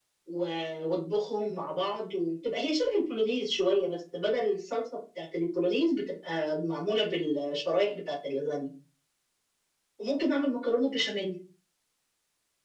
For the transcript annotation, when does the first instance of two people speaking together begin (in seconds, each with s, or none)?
none